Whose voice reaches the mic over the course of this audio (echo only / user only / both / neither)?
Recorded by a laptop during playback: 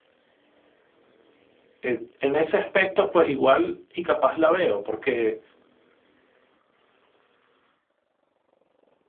user only